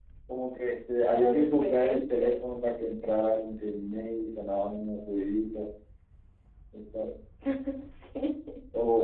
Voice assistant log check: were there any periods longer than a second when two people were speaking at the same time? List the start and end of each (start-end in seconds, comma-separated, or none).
1.1-2.4